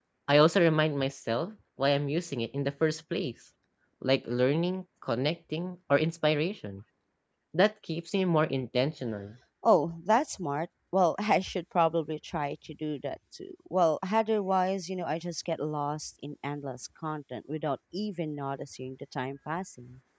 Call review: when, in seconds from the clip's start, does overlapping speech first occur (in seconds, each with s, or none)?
none